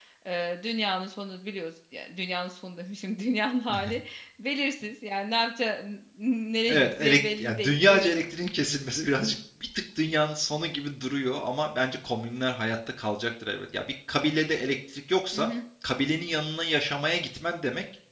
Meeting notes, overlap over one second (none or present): present